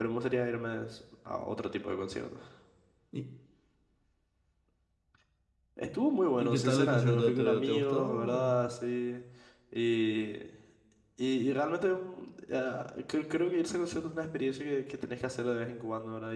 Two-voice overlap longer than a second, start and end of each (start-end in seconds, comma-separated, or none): 6.4-8.6